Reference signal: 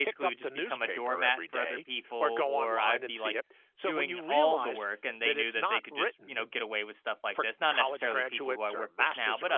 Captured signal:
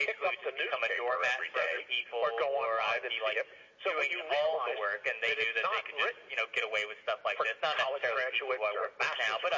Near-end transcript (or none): none